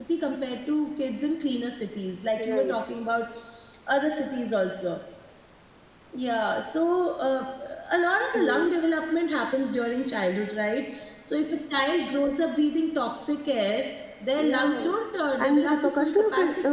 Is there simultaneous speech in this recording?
Yes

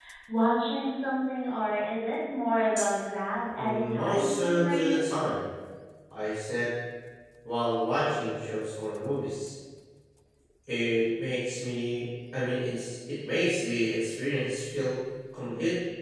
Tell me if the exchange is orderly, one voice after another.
No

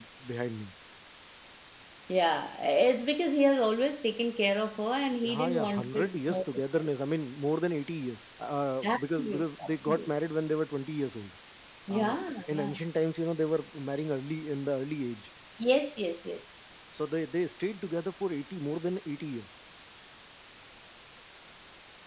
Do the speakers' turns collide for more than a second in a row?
Yes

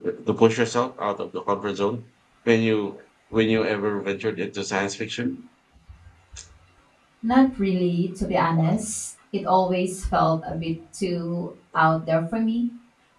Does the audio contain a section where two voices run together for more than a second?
No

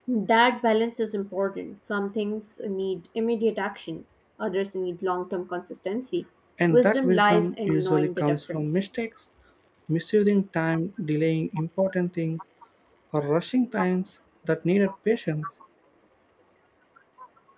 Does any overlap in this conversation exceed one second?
Yes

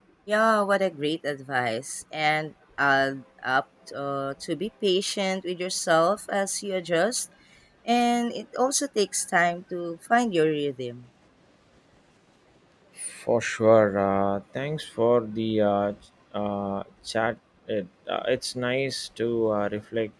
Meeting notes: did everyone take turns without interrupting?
Yes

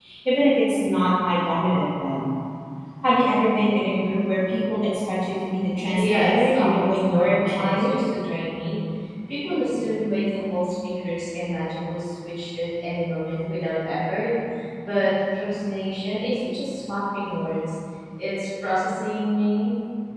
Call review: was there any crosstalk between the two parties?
Yes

